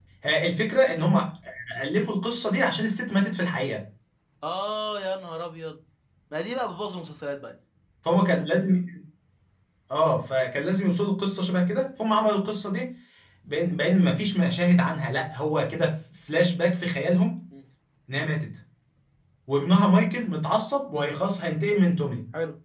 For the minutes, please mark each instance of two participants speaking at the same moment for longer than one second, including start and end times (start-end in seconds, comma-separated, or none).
none